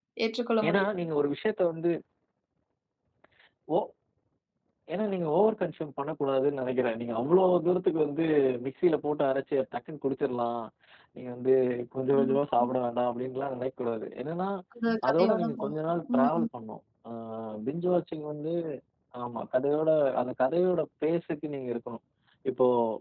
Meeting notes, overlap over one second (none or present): present